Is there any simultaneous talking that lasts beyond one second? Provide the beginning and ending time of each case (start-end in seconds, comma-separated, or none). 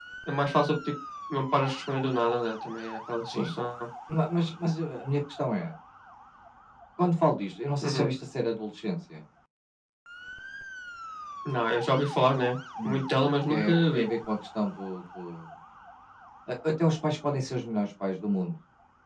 12.8-14.1